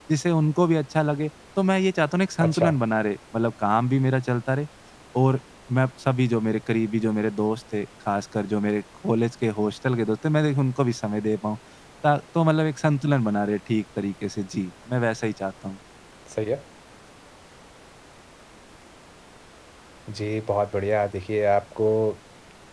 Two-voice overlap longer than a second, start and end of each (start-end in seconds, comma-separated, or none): none